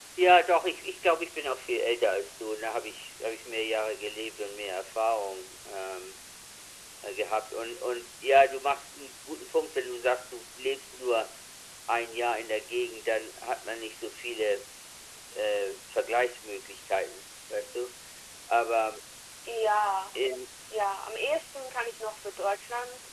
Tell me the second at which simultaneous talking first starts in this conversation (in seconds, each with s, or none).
none